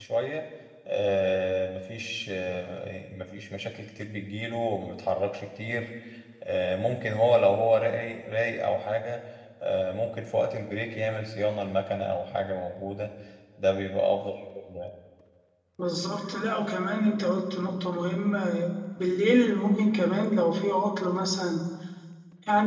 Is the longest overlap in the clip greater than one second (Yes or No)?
No